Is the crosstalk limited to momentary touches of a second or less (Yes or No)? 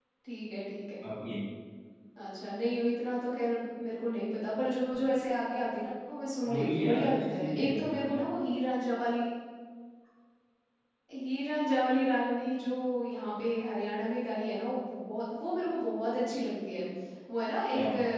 No